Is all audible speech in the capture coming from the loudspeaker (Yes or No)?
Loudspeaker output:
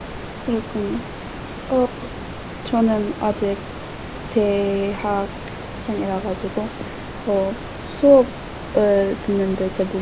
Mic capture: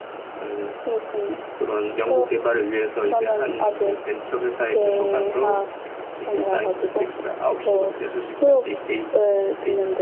No